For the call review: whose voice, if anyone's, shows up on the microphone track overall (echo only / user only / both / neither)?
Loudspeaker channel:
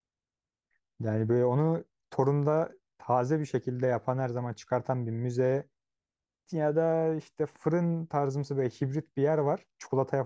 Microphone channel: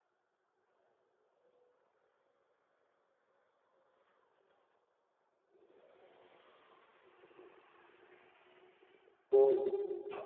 user only